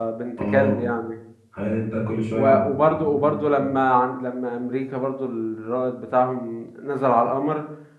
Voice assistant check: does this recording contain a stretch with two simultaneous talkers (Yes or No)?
Yes